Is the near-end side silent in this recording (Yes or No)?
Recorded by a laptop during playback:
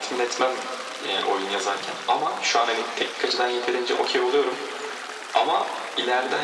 Yes